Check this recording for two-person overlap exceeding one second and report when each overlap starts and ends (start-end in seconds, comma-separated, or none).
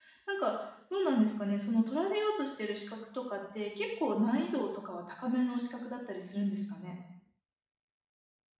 none